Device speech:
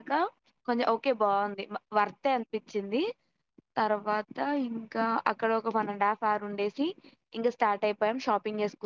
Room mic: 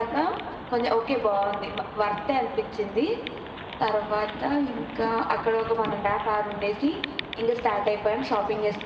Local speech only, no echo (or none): none